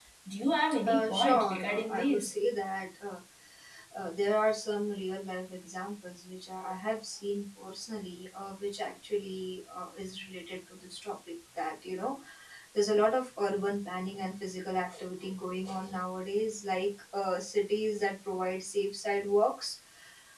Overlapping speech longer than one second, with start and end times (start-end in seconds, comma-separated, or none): 0.9-2.3